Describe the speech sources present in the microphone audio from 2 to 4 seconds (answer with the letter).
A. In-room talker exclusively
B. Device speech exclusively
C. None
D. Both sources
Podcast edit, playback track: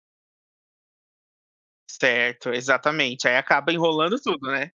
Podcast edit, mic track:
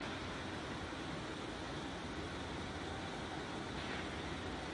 C